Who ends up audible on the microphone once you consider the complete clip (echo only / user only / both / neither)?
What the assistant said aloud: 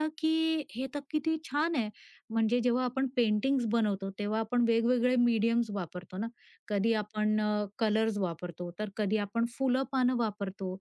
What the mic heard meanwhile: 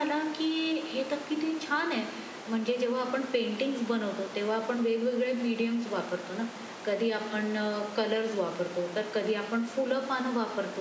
echo only